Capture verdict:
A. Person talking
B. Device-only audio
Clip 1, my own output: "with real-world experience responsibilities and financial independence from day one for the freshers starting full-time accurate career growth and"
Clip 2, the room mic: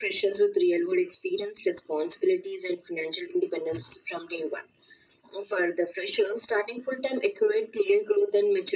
B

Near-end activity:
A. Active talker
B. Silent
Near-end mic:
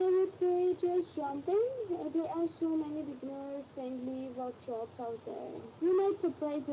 B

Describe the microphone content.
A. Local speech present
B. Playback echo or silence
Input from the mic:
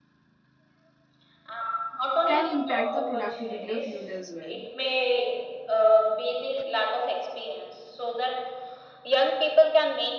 A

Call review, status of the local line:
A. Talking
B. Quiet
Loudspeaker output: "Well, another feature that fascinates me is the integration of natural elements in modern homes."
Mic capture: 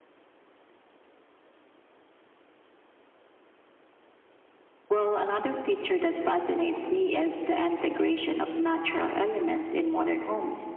B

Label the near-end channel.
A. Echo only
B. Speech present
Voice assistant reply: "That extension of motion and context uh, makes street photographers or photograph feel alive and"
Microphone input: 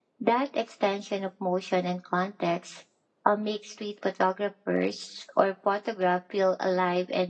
A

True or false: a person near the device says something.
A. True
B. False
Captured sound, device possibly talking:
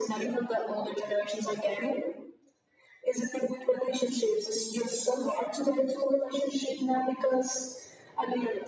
B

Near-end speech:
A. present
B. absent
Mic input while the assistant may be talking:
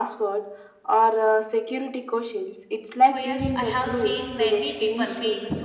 A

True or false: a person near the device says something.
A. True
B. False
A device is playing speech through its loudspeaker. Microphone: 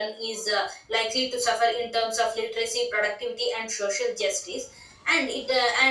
B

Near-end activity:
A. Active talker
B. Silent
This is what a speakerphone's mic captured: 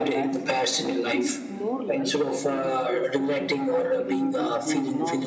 A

